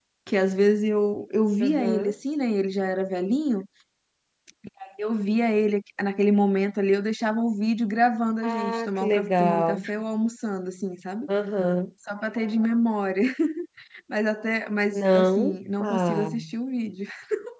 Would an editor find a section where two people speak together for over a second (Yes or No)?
Yes